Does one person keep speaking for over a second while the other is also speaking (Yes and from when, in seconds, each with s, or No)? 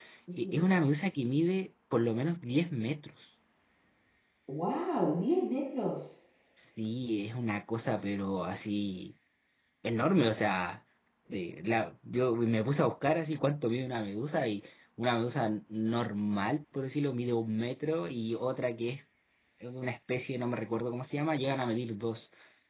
No